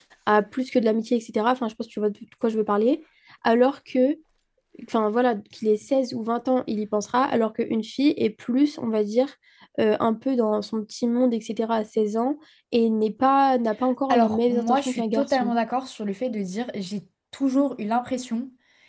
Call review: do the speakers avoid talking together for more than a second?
No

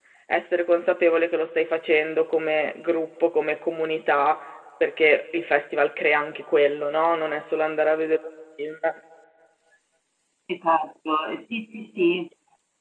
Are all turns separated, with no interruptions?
Yes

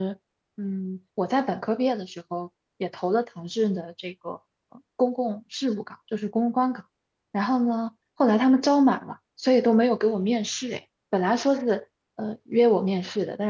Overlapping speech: No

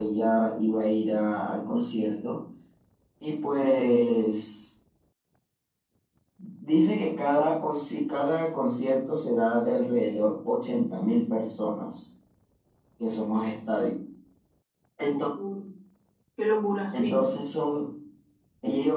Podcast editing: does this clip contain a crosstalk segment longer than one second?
No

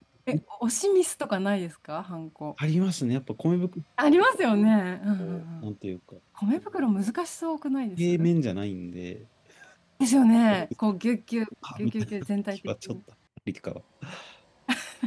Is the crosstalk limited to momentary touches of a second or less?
Yes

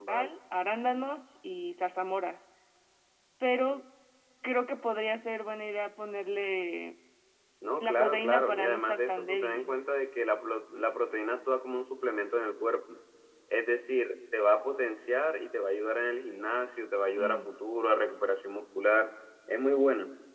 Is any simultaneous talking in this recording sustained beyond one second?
Yes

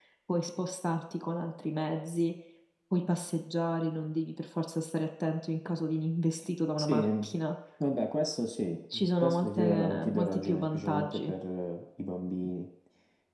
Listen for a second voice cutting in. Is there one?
Yes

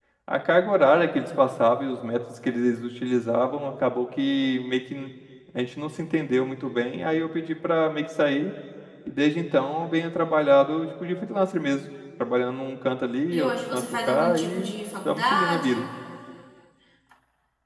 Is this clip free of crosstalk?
No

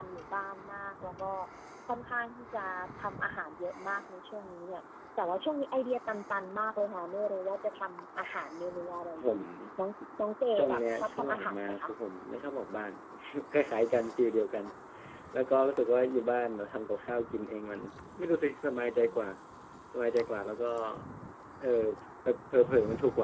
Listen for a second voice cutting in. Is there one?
Yes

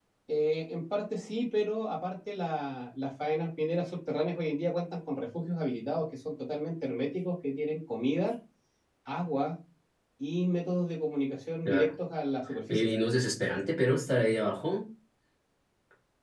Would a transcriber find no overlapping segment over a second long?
Yes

